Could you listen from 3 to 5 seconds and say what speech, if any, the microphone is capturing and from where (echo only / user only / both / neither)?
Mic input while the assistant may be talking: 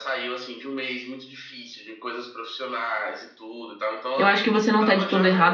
both